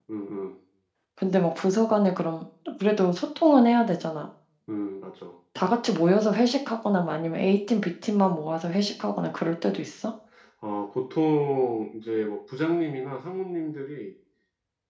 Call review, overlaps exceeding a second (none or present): none